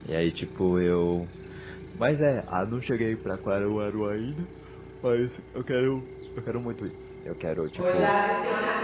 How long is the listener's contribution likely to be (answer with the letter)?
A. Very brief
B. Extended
B